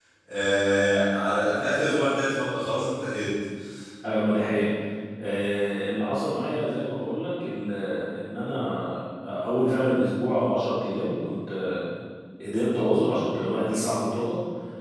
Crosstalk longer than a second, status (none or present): none